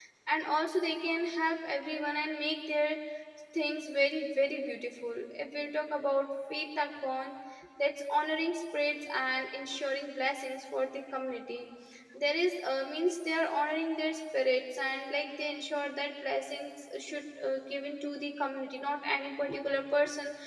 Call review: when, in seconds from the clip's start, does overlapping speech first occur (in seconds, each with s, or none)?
none